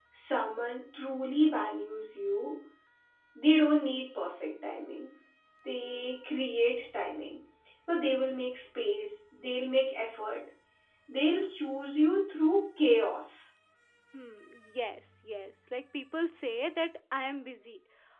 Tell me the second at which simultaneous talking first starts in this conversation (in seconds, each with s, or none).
none